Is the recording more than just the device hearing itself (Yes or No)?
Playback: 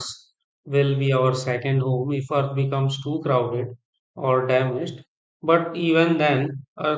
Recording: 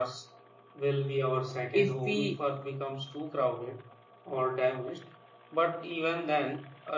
Yes